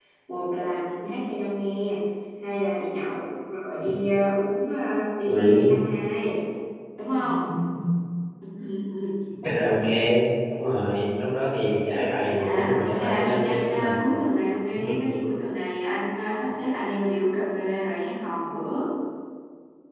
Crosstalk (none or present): present